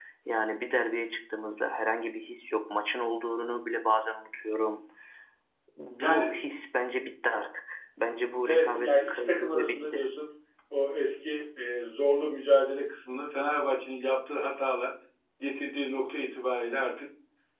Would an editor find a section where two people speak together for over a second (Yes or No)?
Yes